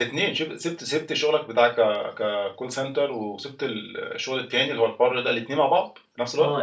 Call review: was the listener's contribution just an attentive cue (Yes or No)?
No